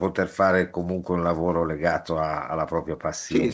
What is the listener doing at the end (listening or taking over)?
taking over